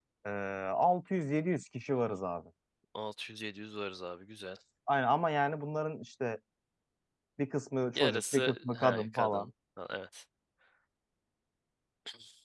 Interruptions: present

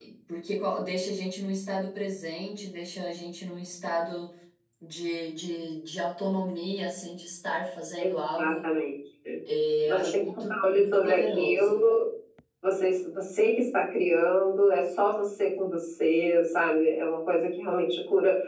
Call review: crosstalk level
present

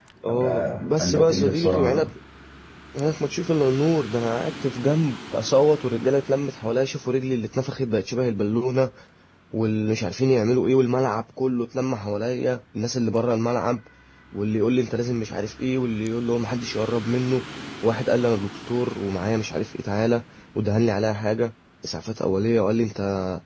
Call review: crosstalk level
present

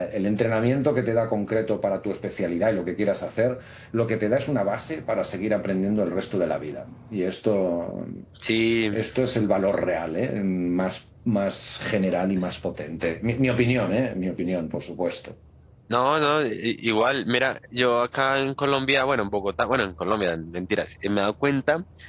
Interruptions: none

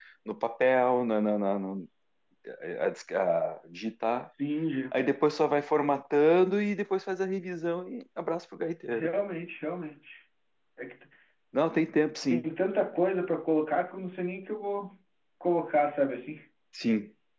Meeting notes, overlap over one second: none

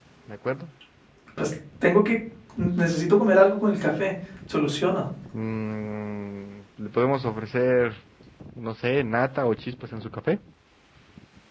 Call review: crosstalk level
none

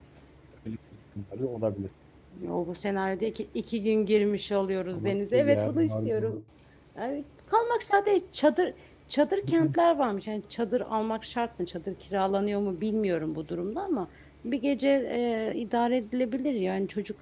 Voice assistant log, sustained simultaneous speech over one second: present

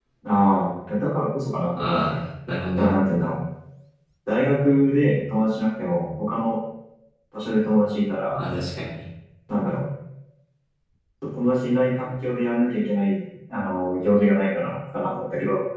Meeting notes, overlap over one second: none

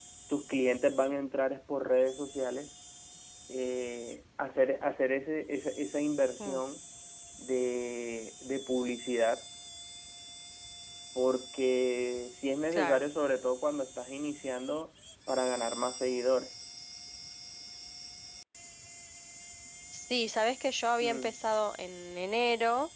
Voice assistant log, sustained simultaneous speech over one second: none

